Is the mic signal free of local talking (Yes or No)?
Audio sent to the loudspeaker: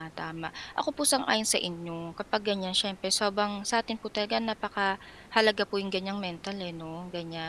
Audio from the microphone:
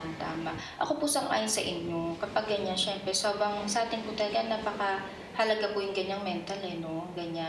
Yes